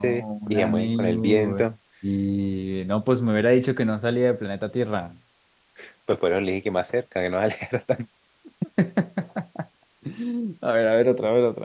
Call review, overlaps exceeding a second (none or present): present